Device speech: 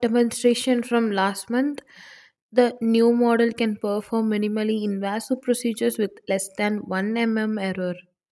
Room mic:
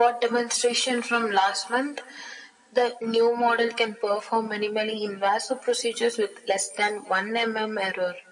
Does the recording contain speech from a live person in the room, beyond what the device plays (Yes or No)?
No